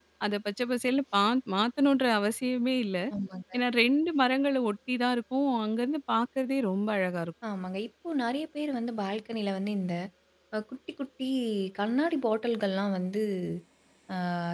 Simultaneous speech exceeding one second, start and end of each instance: none

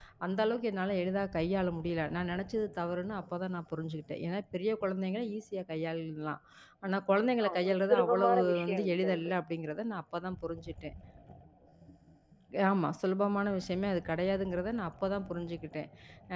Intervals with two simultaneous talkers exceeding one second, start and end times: 7.4-9.3

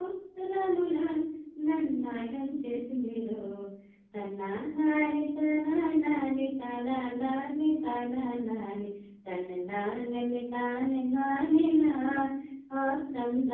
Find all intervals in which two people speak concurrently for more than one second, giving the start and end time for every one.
none

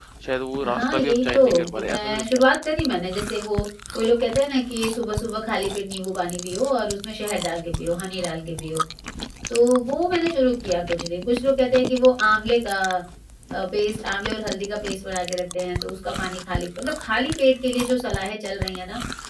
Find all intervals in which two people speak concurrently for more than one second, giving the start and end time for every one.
0.6-2.4

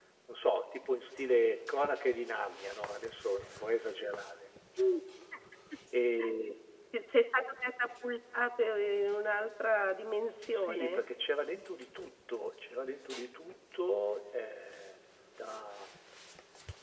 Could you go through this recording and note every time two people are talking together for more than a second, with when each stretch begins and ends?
none

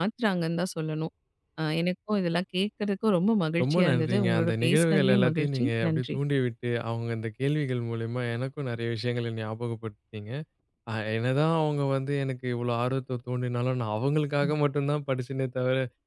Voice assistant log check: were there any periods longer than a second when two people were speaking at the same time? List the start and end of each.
3.6-6.2

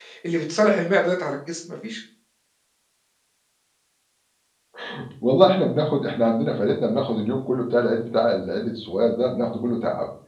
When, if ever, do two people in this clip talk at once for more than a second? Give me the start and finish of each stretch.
none

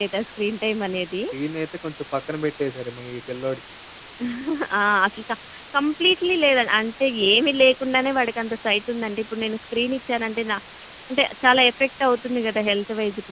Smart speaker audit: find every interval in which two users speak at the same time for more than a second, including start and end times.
none

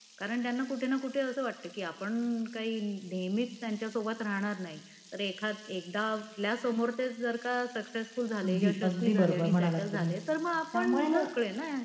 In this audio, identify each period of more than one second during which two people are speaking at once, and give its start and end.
8.4-10.1

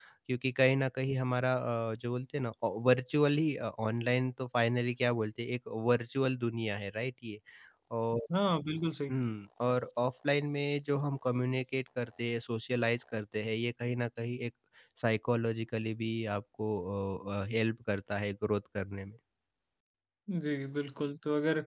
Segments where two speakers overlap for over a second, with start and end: none

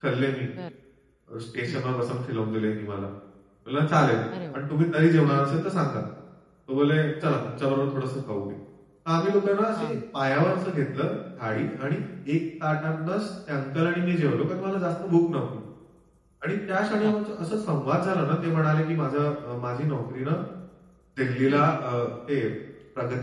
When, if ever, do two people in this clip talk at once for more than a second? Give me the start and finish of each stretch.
none

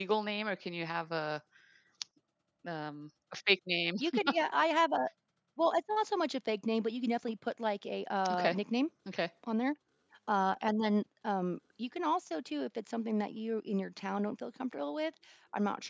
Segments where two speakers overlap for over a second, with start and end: none

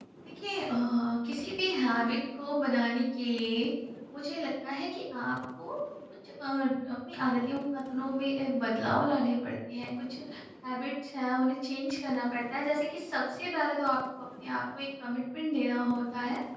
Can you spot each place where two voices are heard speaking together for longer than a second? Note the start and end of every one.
none

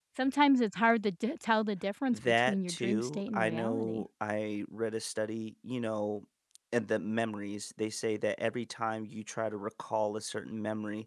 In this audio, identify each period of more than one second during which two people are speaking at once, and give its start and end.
2.1-4.0

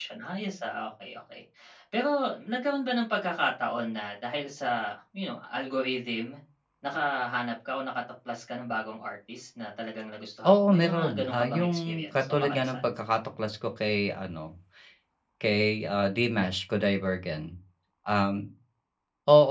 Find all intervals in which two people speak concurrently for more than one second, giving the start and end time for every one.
10.5-12.9

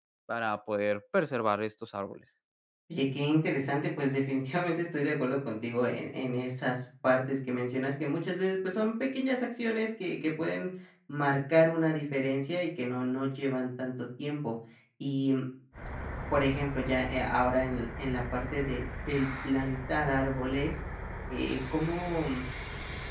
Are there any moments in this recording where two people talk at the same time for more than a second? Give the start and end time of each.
none

